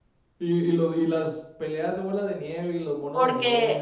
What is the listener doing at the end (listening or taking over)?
taking over